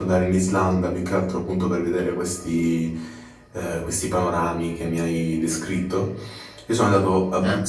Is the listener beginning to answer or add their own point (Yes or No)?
No